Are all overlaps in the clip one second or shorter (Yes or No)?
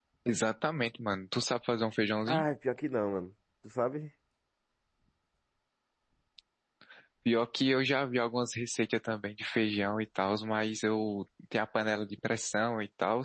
Yes